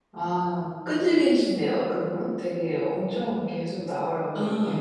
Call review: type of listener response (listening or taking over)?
taking over